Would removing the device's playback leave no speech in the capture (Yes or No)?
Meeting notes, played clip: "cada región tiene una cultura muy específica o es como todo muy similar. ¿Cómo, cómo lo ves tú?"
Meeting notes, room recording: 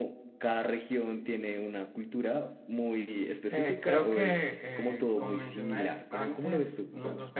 No